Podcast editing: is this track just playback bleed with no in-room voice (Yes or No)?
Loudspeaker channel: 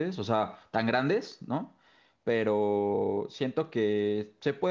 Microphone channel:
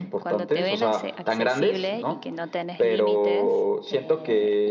No